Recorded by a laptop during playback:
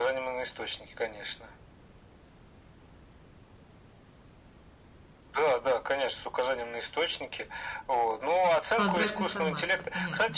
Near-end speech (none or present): present